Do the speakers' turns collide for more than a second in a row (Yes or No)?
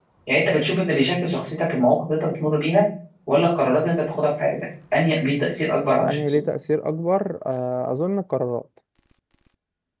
No